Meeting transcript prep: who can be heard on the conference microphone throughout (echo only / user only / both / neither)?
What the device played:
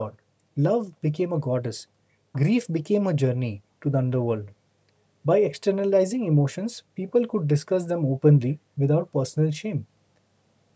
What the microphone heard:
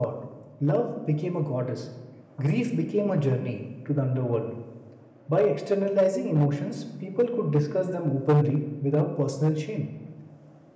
echo only